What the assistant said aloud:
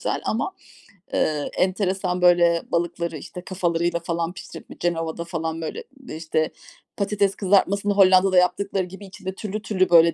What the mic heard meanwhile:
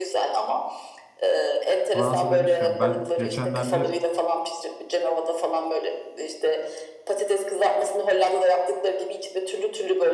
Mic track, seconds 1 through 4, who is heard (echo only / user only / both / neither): both